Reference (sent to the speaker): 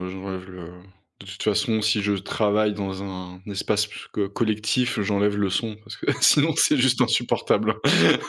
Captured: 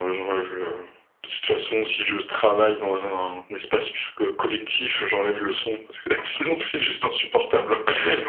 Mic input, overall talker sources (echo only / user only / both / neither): echo only